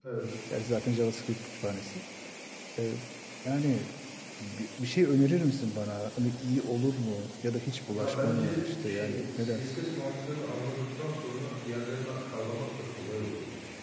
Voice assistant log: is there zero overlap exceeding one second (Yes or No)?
No